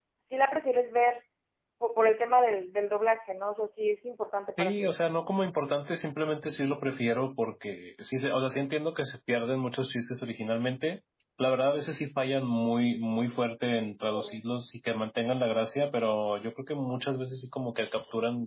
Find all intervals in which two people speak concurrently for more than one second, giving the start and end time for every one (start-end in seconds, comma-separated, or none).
none